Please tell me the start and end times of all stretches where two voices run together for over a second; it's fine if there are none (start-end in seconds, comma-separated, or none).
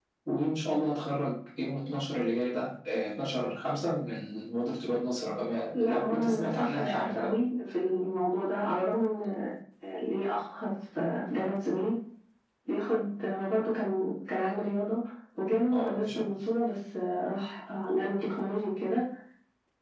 5.8-7.3